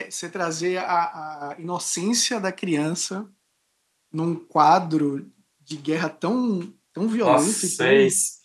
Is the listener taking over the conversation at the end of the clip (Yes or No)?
Yes